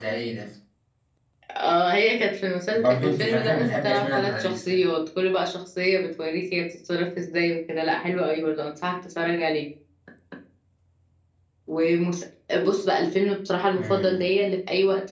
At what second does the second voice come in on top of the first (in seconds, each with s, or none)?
2.7 s